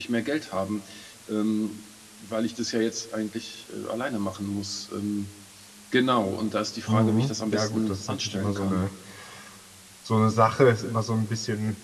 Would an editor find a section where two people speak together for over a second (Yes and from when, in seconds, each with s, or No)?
Yes, from 6.9 s